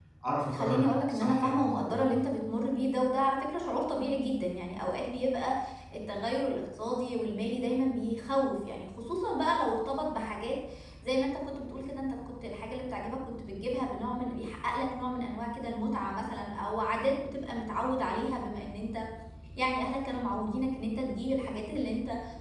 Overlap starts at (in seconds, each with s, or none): 0.5 s